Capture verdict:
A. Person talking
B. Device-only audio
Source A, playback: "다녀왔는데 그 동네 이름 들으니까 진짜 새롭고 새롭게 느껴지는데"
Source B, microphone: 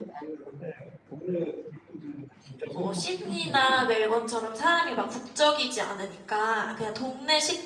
A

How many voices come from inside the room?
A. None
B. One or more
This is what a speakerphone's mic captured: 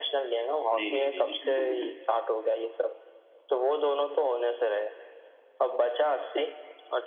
B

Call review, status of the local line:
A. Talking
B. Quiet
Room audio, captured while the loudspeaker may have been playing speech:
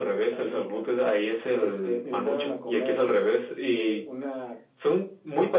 B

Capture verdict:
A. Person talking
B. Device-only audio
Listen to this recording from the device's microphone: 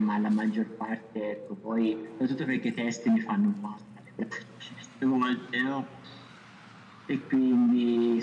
B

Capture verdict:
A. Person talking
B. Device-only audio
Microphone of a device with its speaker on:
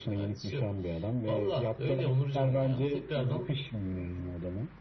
B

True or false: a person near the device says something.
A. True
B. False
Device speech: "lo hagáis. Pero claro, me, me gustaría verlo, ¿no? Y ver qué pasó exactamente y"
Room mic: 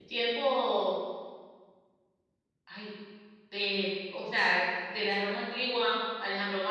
A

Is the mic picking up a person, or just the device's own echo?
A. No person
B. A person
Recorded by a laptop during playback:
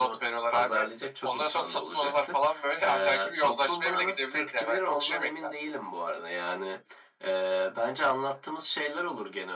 A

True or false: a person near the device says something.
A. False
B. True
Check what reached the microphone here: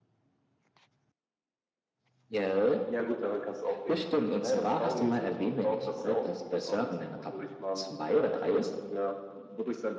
A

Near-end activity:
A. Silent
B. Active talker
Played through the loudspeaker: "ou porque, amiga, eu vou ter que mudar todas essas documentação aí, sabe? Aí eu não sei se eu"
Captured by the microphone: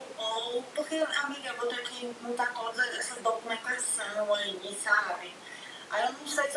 A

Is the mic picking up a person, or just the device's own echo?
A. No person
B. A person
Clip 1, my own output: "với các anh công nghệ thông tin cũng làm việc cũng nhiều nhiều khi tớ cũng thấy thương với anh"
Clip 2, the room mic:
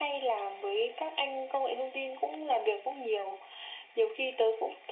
A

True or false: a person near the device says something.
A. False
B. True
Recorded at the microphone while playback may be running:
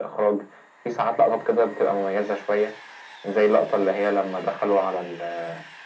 A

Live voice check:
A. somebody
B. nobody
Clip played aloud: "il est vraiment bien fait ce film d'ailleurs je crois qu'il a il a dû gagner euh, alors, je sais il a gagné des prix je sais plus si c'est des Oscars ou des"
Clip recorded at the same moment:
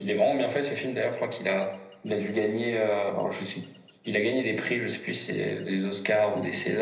B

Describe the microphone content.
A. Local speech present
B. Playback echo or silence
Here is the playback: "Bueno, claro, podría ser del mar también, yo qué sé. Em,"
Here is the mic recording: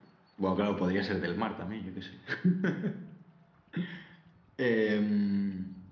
B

